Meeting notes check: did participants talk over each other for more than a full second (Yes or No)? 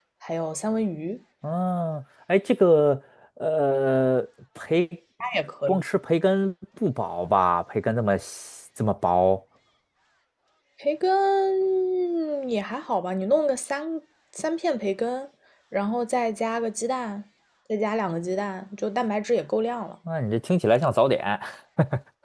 No